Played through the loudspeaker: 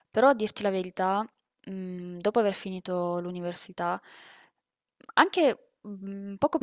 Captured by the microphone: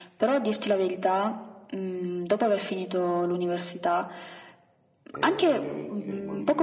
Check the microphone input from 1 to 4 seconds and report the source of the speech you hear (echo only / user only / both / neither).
echo only